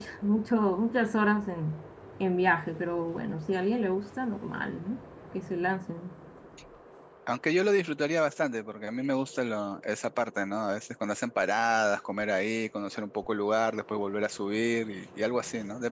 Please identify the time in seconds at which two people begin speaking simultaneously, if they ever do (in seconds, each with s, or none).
none